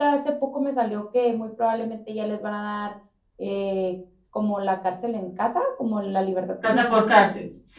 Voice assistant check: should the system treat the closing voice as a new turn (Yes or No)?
Yes